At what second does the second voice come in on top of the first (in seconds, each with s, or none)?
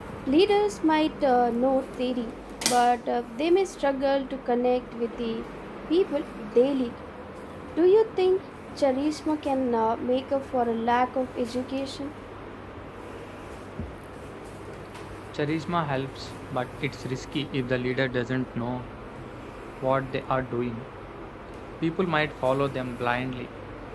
none